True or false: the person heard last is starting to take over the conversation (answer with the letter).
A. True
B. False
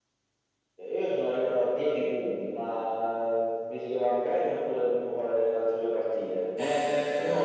A